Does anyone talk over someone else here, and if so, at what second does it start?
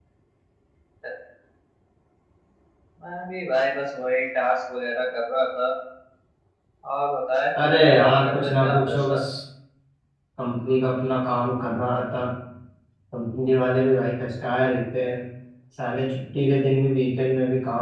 8 s

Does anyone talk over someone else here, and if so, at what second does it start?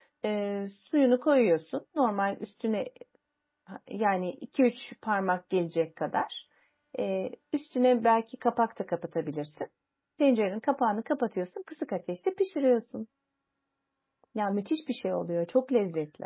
none

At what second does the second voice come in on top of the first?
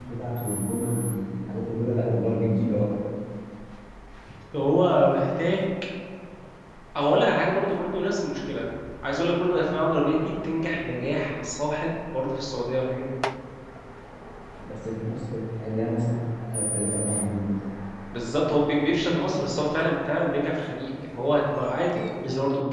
none

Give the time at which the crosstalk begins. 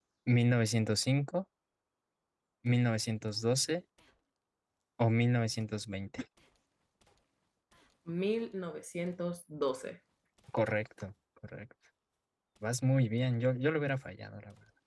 none

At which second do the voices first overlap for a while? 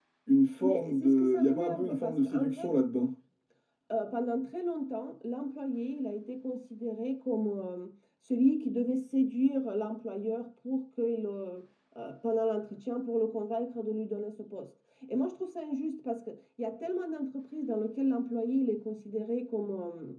1 s

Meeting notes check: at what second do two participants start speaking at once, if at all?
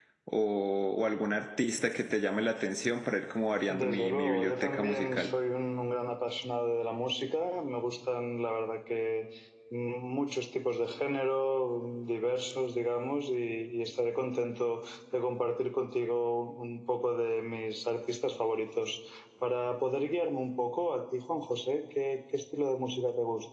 4 s

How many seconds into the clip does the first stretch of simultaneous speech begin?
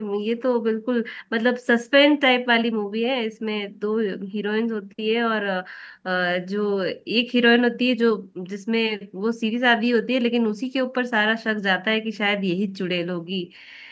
none

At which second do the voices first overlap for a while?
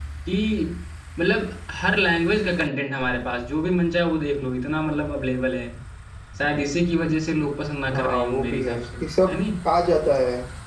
8 s

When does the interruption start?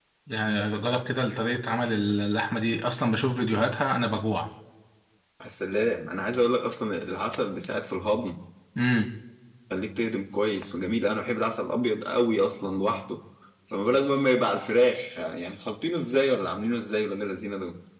none

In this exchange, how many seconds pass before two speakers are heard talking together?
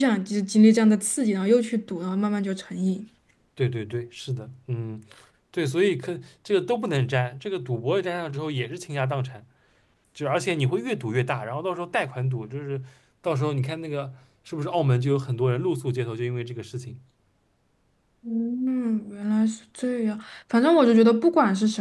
none

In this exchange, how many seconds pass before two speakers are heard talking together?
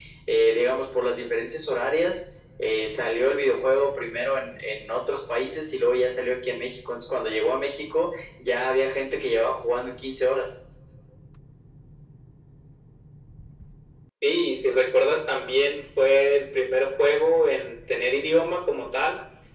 none

